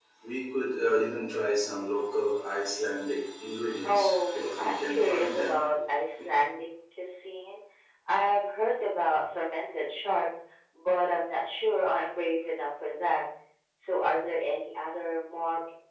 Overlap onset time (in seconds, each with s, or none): 3.8 s